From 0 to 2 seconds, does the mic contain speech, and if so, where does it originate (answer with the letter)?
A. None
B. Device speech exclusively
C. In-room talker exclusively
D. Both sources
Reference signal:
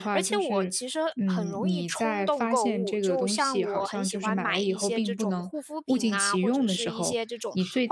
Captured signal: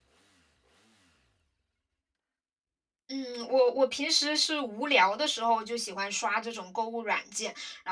A